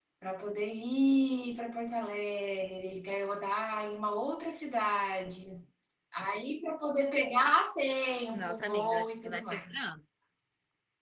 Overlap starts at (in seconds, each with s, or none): 8.3 s